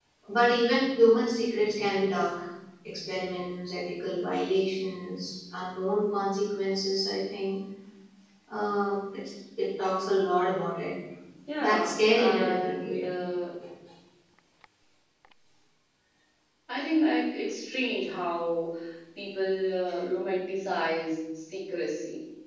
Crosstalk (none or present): present